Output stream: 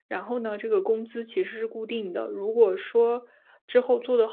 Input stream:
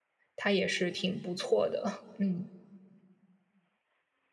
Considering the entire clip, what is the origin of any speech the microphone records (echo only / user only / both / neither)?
user only